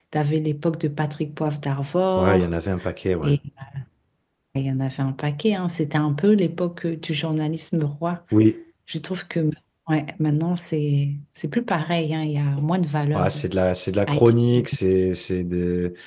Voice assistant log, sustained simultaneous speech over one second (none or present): none